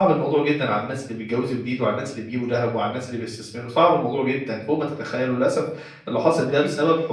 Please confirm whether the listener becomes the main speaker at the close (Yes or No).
No